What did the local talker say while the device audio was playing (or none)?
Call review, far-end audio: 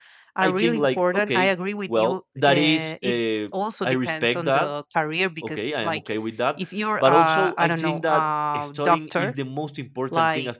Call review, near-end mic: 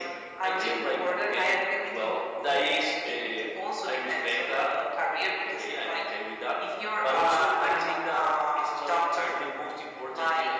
none